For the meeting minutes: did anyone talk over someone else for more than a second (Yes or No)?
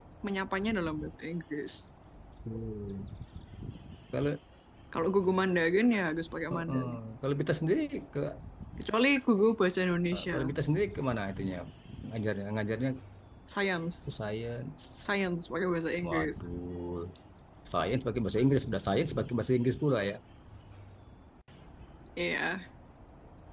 No